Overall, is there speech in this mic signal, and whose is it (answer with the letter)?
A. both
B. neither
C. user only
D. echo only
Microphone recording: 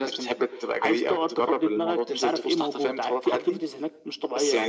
D